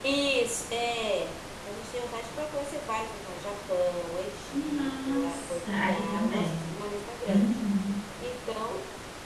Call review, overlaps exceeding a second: present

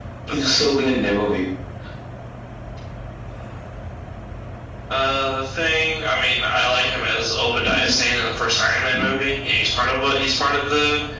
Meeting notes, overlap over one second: none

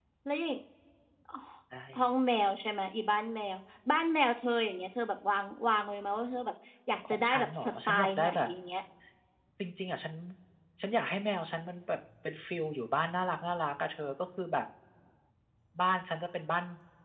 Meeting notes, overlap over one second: present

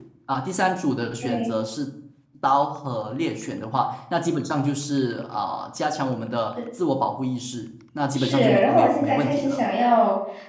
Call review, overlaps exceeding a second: present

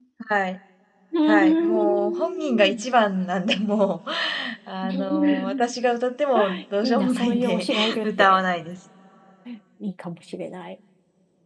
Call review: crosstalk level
present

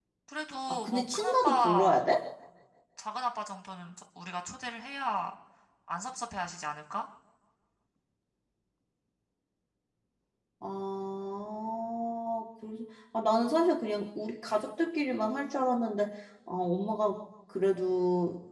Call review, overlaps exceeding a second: present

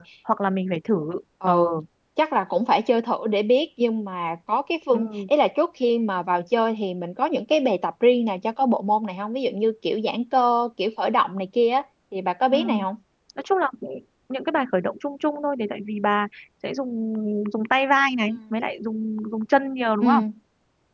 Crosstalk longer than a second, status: none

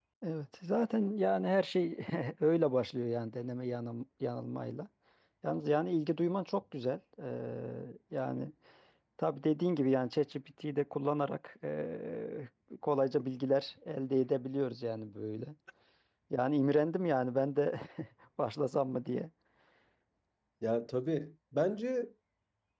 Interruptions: none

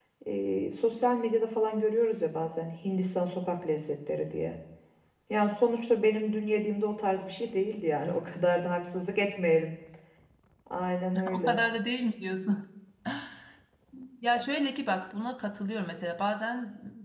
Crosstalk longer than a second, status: none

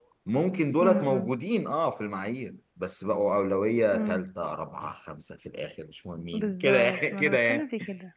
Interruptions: present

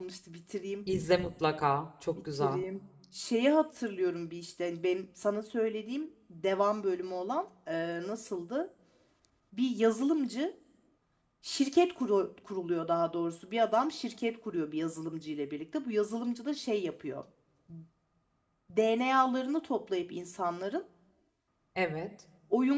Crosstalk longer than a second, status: none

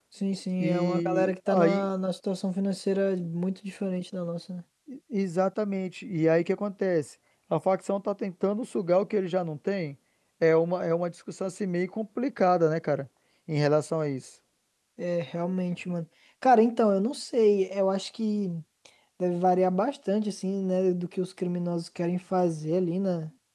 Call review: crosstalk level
present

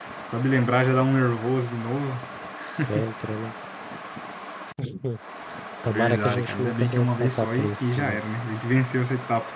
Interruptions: present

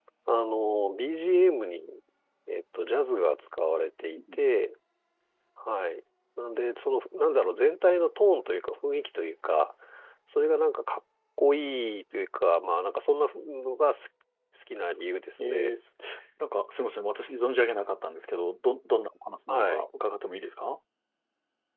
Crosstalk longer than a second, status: none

